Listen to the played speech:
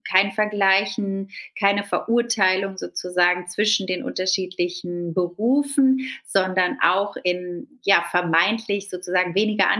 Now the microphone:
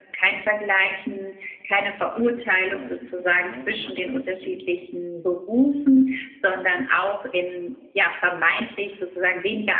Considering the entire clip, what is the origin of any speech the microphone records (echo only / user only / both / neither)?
both